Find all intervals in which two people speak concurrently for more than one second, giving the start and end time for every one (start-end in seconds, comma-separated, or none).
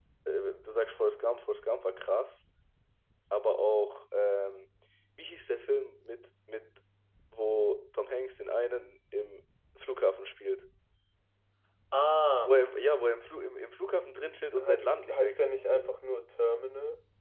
14.6-15.9